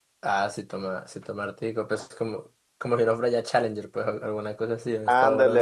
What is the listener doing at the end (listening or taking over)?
taking over